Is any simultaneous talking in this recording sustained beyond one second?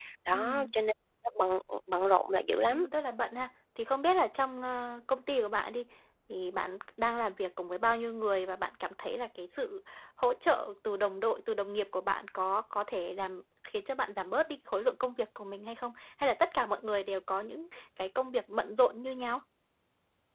No

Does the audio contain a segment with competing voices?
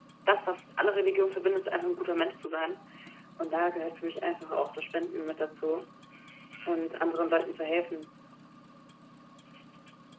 No

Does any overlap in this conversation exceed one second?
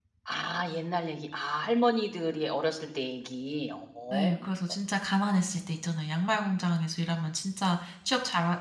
No

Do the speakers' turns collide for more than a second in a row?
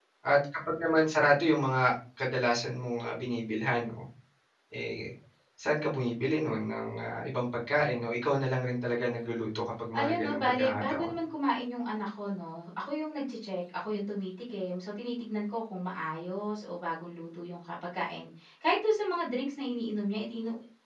Yes, from 9.9 s

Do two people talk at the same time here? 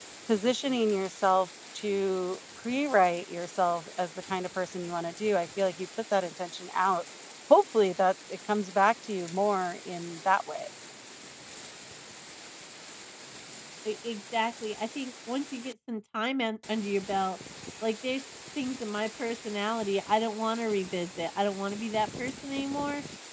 No

